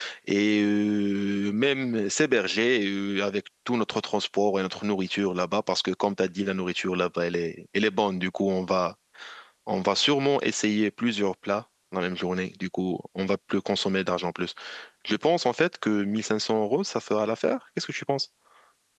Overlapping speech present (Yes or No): No